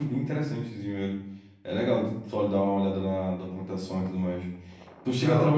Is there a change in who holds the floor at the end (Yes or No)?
No